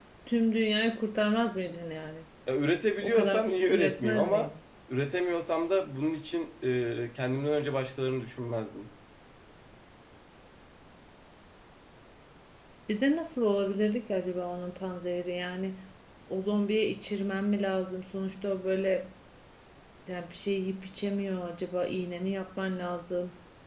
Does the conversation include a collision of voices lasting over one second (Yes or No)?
Yes